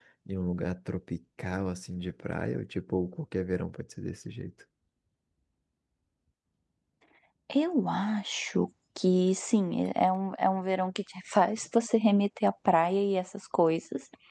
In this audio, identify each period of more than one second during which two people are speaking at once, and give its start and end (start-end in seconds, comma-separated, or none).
none